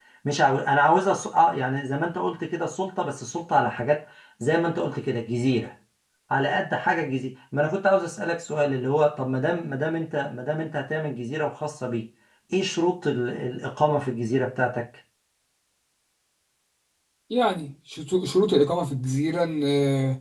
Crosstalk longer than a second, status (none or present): none